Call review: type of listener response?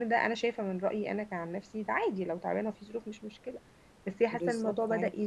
listening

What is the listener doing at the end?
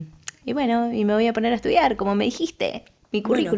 taking over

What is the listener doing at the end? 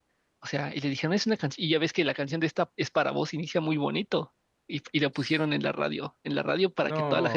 listening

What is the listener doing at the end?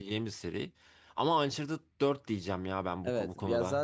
taking over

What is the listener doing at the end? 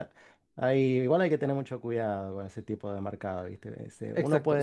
taking over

